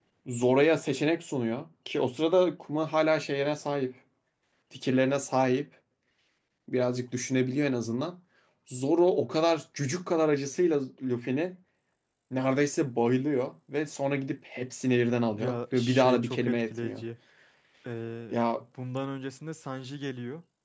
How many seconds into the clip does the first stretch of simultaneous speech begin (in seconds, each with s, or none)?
15.3 s